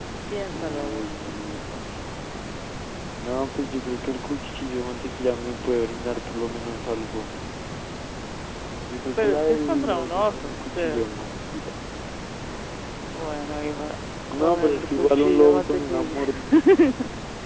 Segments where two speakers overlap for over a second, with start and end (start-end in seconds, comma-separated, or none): 9.2-11.1, 14.3-16.2